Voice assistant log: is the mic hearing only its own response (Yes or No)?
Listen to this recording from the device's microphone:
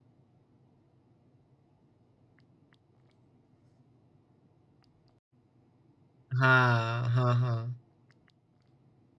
No